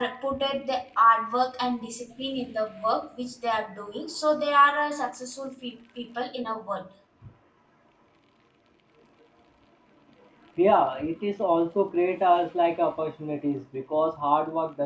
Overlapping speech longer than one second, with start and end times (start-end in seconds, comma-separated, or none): none